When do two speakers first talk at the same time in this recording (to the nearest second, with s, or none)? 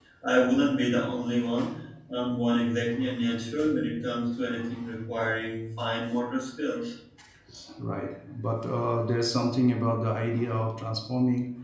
none